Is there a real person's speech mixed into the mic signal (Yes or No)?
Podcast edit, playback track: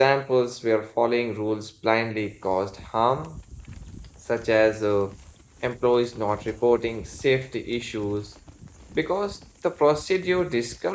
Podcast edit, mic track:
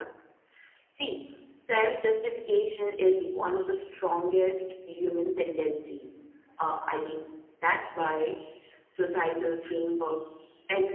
Yes